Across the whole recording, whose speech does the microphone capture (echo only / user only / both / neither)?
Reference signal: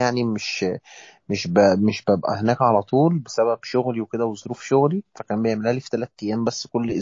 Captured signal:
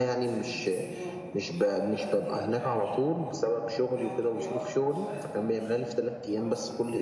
both